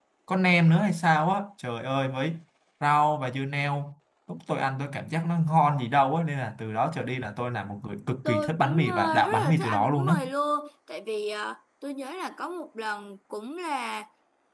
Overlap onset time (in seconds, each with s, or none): 8.2 s